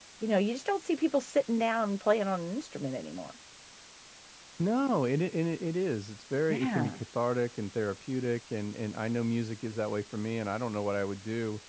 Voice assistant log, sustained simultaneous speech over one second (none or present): none